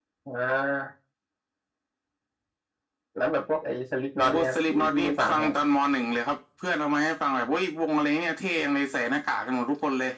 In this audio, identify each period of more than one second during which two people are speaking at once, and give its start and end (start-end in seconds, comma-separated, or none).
4.2-5.6